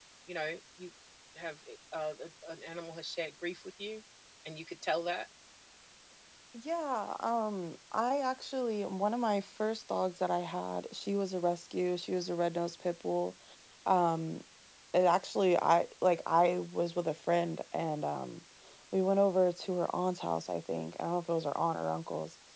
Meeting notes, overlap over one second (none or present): none